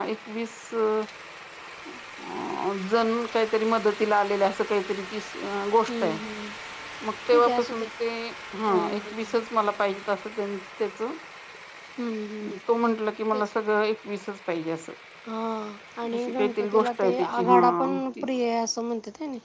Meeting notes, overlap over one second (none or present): present